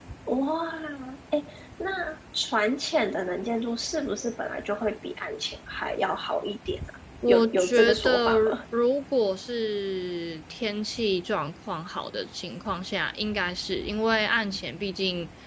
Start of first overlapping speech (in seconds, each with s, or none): 7.2 s